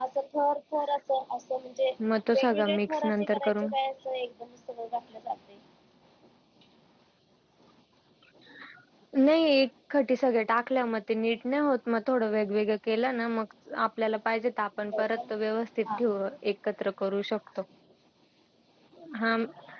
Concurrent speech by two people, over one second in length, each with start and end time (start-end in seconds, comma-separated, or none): 2.3-3.6